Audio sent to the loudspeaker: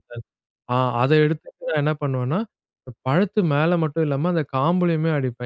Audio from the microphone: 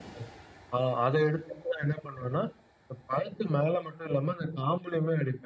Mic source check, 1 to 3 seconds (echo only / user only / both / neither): echo only